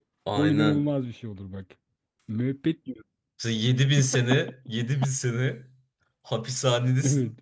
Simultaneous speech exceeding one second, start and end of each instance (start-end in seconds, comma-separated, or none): none